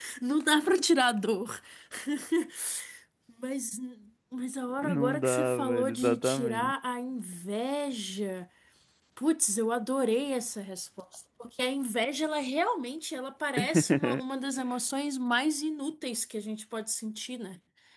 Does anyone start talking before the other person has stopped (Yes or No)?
Yes